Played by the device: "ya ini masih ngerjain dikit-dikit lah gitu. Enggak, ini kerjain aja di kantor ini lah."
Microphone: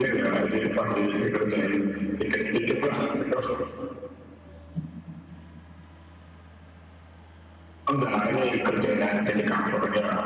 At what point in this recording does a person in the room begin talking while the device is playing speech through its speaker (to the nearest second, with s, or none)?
none